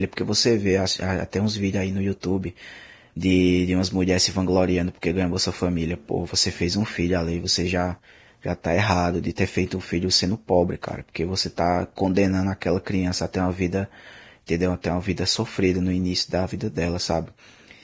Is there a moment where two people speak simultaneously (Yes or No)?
No